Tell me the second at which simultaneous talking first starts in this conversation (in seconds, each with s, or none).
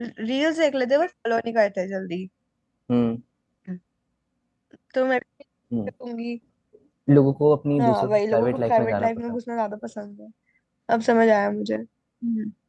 7.8 s